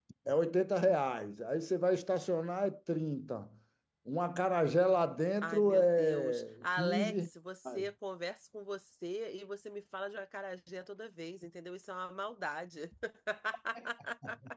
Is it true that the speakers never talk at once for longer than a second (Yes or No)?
No